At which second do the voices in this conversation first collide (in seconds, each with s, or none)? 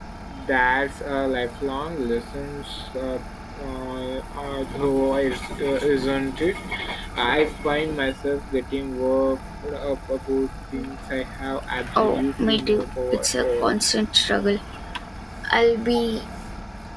12.0 s